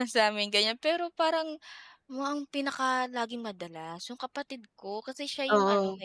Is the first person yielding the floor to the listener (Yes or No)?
No